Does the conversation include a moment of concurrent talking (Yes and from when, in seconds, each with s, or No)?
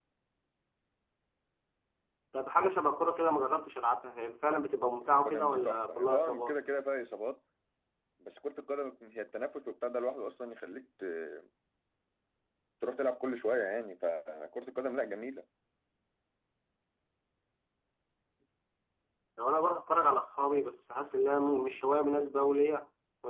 Yes, from 5.0 s